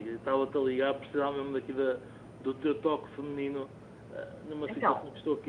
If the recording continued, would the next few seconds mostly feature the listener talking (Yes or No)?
No